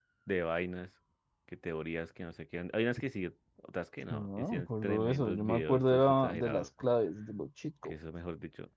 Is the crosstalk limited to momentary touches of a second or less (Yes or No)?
No